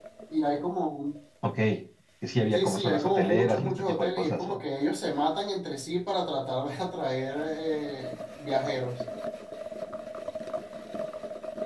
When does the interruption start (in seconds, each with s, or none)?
2.5 s